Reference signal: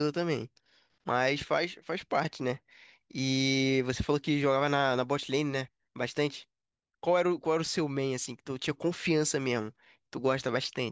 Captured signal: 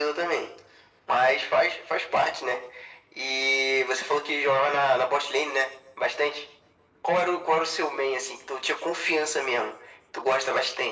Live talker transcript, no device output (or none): none